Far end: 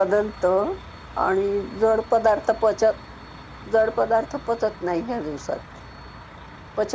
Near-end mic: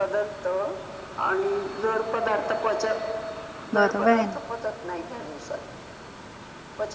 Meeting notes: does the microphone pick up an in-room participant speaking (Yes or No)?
Yes